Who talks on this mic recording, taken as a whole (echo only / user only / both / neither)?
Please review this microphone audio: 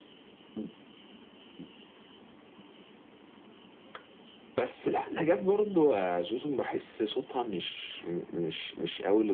echo only